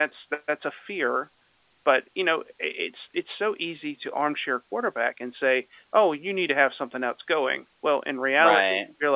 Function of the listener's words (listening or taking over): listening